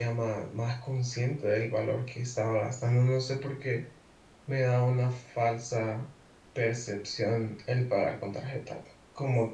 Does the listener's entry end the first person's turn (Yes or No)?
No